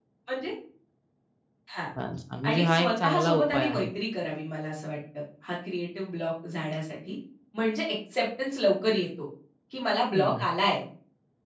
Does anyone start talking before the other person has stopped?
Yes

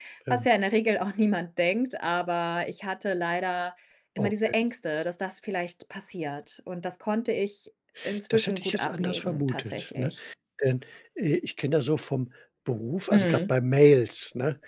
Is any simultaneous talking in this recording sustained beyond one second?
Yes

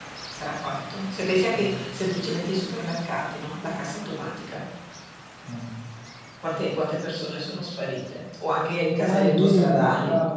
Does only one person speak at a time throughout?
No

